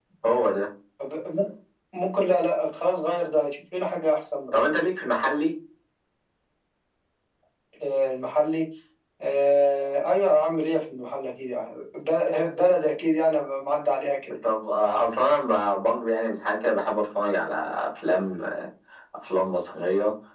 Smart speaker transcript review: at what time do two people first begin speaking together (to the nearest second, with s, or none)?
none